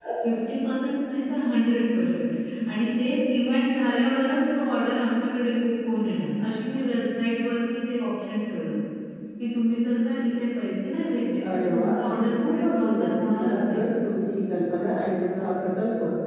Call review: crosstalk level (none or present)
present